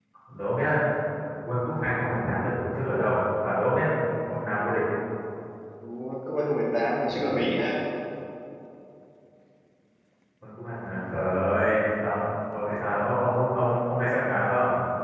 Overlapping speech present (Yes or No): No